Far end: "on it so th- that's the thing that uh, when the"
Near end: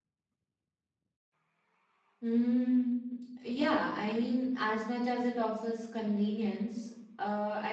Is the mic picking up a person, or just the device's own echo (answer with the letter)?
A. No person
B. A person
B